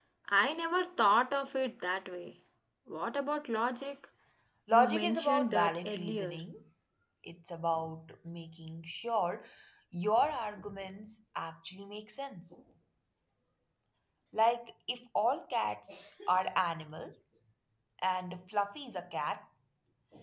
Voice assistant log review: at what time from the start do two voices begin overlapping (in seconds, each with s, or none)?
4.7 s